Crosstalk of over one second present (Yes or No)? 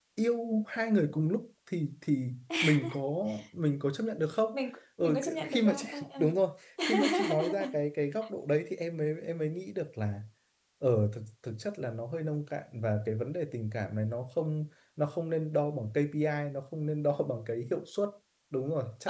Yes